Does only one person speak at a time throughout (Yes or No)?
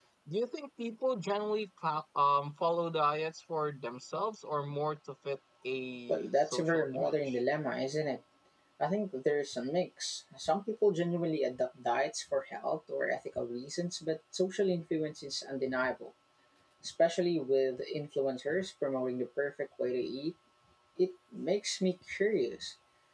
No